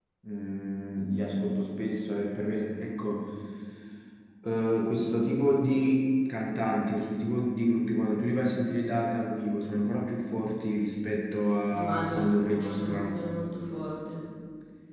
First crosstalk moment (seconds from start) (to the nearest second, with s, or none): 12 s